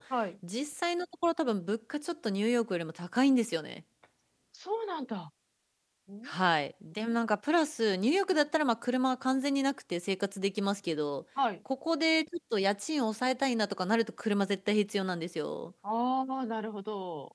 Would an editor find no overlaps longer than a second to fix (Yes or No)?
Yes